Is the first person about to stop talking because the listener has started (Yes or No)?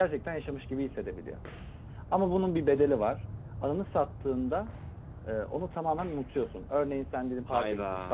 No